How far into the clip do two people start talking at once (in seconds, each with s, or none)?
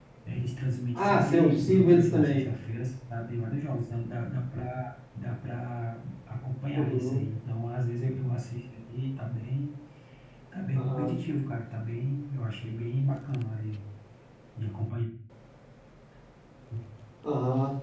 0.9 s